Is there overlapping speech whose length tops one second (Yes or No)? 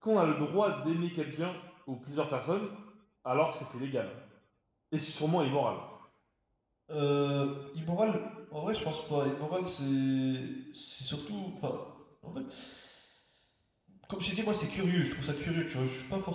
No